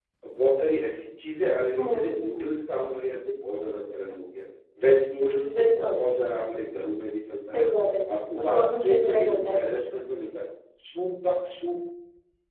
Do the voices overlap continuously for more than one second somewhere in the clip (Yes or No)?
Yes